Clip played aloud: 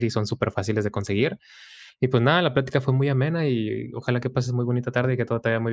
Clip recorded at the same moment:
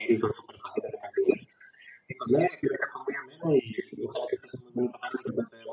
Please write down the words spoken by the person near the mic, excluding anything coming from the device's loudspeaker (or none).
none